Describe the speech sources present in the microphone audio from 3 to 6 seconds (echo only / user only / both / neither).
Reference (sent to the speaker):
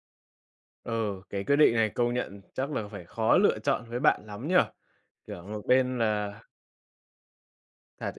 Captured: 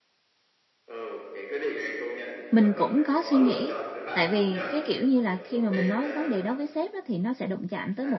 both